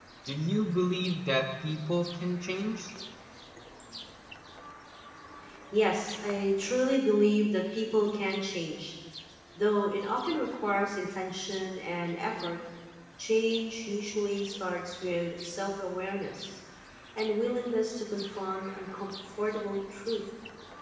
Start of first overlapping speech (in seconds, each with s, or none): none